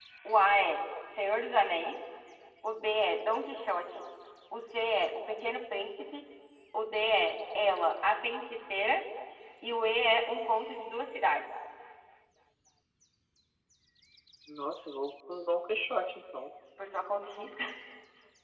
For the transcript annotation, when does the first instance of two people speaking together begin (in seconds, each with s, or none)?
none